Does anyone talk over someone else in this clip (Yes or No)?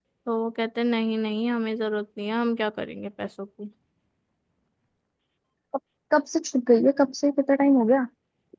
No